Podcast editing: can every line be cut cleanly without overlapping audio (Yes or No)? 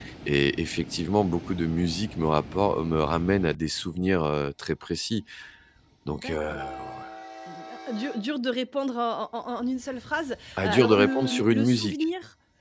No